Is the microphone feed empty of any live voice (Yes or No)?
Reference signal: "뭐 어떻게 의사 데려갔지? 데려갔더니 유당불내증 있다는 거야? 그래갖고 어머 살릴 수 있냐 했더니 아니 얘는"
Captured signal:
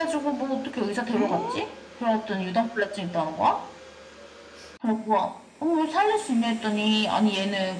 No